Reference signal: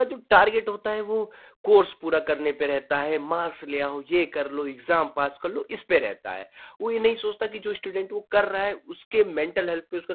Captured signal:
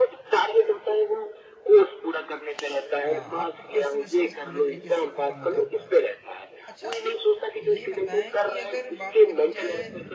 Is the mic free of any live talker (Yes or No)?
No